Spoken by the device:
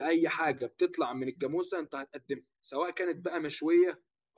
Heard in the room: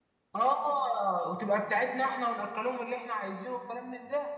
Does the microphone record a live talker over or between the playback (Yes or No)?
Yes